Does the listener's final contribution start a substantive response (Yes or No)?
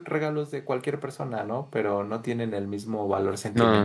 Yes